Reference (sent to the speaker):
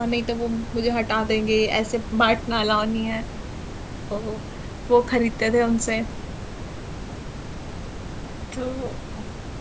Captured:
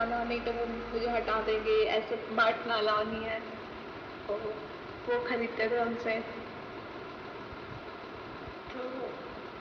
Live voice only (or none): none